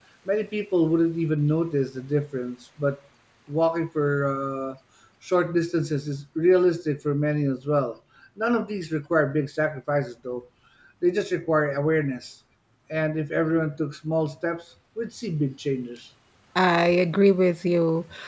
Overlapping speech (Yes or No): No